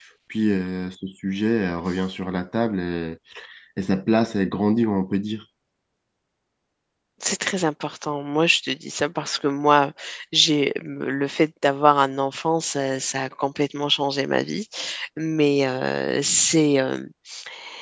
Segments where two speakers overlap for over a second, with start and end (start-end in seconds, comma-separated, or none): none